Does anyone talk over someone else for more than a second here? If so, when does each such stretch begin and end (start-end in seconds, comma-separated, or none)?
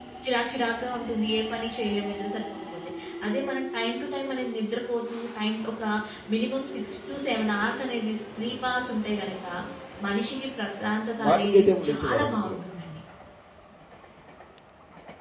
11.2-12.6